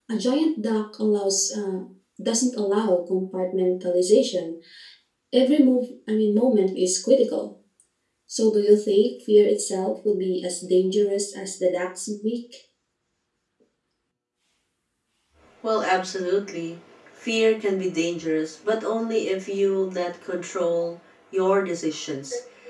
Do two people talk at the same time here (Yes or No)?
No